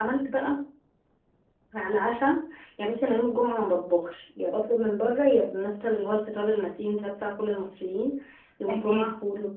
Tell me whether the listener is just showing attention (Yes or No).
Yes